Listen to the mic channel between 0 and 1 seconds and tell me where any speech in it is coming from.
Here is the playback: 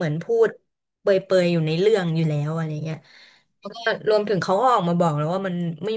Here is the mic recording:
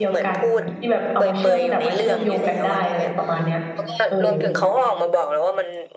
both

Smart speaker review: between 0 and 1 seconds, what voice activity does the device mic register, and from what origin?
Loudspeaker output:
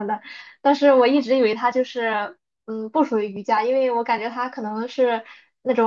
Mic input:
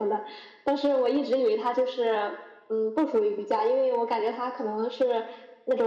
echo only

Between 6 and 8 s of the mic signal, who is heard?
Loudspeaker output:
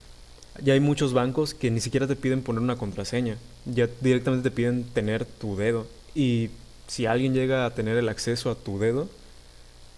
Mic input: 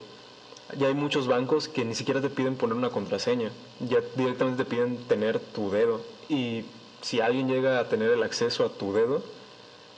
echo only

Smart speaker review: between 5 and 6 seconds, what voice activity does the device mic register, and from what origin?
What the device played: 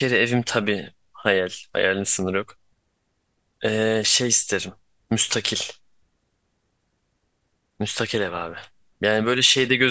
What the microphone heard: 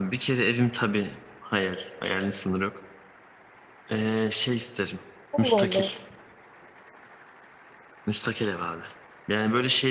both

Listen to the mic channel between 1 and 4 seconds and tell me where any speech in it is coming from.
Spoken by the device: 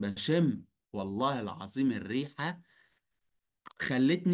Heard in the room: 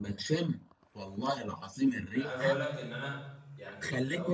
both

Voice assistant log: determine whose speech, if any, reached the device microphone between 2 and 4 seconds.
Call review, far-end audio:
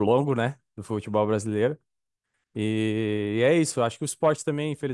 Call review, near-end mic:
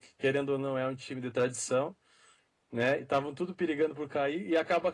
user only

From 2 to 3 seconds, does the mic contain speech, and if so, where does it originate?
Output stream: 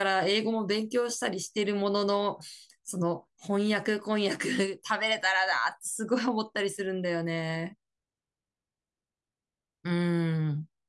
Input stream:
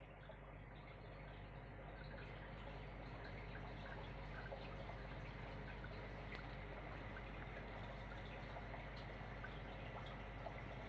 neither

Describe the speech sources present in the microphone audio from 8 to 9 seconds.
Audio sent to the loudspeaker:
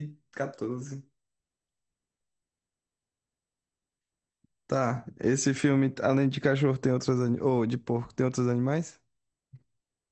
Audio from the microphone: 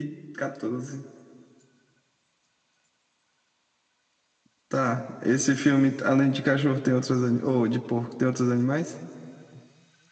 echo only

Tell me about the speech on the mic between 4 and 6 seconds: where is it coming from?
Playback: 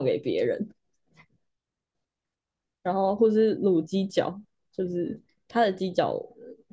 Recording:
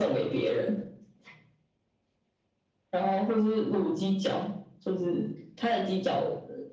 echo only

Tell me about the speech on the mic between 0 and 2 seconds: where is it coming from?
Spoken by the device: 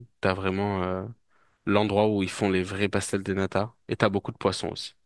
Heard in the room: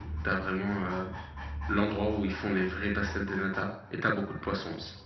echo only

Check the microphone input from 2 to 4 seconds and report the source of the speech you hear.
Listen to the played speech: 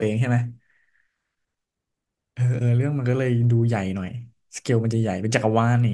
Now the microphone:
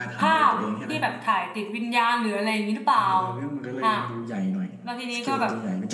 both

